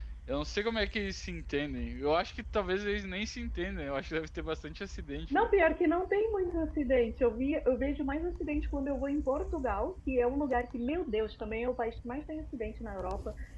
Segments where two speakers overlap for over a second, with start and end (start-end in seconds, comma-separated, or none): none